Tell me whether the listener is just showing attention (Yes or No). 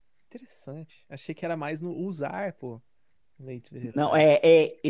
No